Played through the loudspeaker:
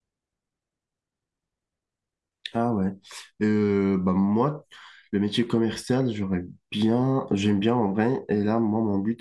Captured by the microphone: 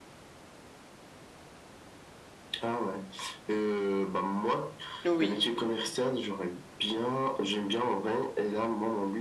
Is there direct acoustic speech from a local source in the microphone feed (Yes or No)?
Yes